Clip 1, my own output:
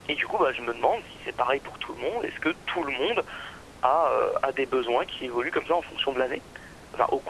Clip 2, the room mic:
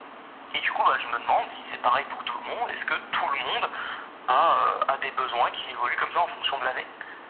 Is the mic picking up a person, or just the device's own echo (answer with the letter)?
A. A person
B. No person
B